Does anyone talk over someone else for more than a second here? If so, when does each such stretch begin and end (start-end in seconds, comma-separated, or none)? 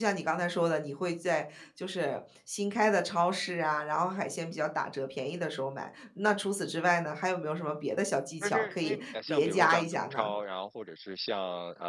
8.4-10.3